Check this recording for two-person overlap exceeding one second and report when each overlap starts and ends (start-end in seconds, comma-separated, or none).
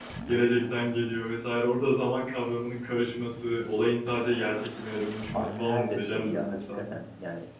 5.3-6.9